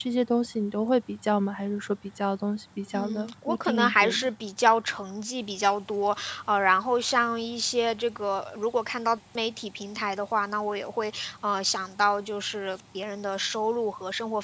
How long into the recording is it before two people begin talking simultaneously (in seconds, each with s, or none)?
2.9 s